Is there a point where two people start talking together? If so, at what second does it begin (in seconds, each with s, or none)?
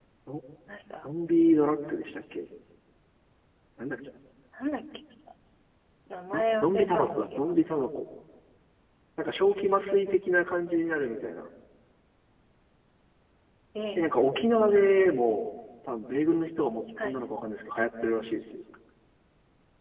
6.3 s